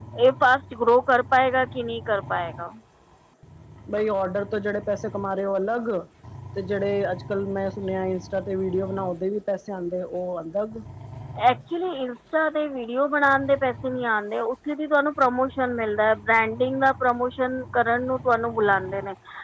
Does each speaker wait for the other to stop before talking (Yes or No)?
Yes